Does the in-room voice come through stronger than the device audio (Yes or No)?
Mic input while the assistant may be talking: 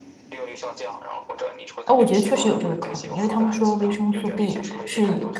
Yes